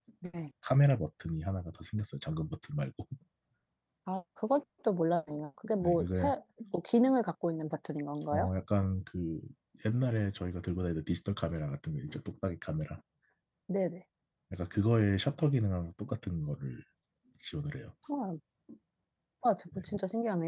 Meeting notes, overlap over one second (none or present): none